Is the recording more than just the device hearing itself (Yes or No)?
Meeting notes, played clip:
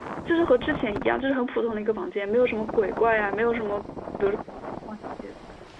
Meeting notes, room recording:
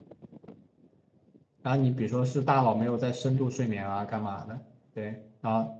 Yes